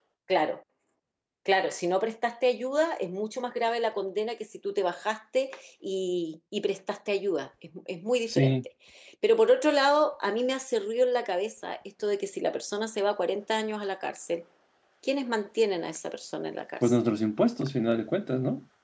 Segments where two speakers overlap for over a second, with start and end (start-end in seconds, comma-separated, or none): none